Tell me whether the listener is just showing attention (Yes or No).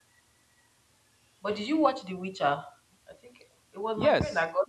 No